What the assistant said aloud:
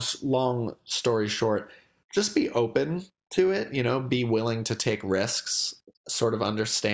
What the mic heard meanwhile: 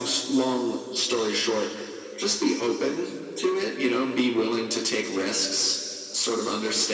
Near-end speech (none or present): none